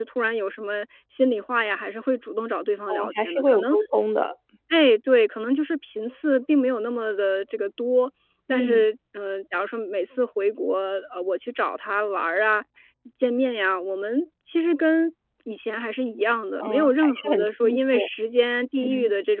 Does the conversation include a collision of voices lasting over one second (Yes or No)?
Yes